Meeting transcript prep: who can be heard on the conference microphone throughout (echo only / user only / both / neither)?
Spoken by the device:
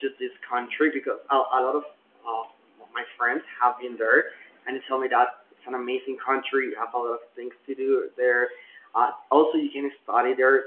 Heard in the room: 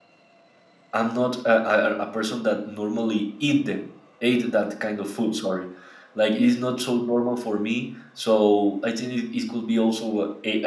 user only